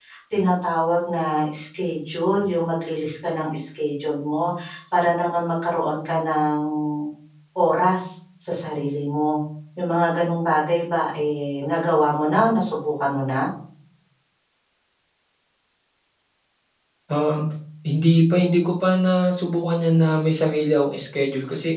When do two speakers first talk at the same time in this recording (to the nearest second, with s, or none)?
none